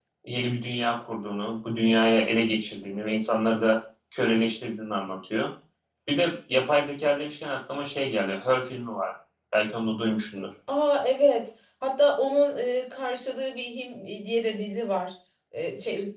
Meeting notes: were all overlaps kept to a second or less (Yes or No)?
Yes